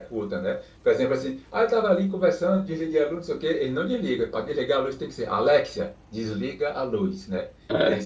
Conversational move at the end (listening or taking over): listening